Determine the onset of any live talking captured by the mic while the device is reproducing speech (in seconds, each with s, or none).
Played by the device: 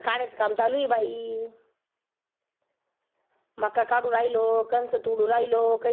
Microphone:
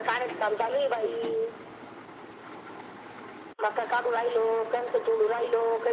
none